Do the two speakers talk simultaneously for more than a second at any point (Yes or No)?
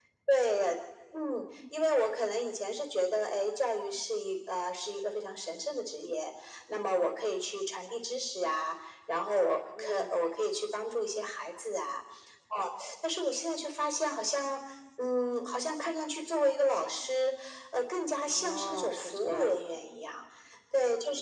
Yes